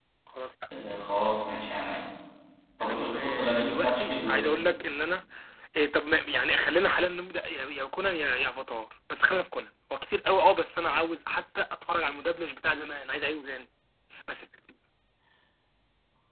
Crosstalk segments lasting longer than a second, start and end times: 2.8-4.6

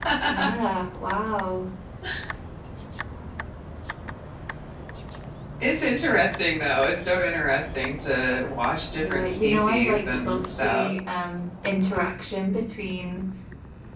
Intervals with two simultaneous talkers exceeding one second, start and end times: 8.9-10.9

